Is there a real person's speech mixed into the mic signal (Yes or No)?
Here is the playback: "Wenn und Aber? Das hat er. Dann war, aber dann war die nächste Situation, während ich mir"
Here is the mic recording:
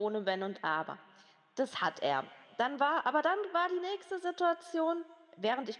No